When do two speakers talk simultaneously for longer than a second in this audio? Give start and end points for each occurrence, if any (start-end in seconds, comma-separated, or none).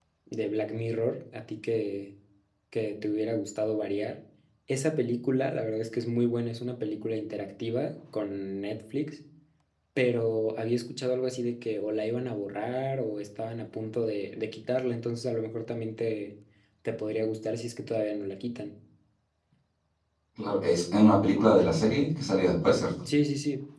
none